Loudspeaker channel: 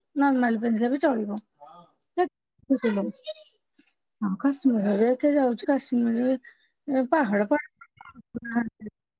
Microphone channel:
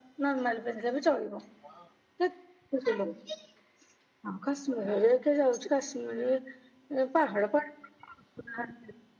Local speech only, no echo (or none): none